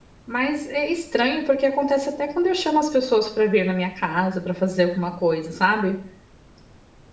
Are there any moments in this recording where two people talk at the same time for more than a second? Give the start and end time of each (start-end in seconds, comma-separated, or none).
none